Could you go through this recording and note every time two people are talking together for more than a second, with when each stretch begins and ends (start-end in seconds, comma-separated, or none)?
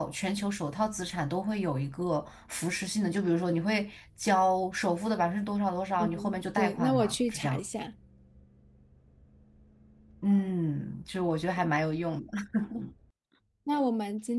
6.0-7.6